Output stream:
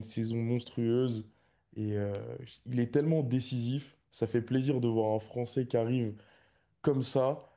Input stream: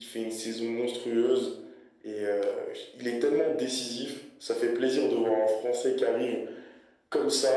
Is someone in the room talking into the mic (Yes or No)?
No